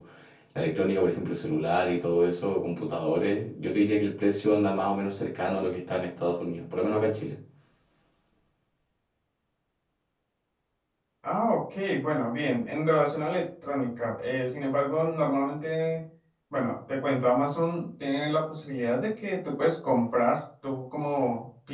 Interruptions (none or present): none